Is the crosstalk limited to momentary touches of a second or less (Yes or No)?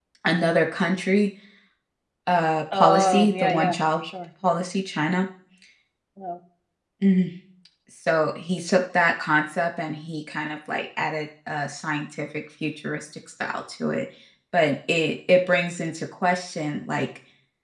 No